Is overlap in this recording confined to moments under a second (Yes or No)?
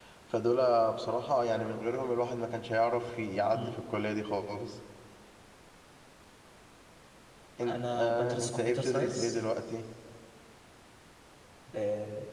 No